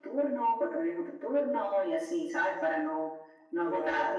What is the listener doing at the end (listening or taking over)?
listening